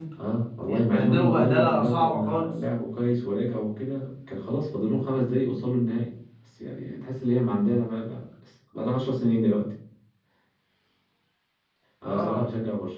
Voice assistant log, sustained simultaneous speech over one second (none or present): present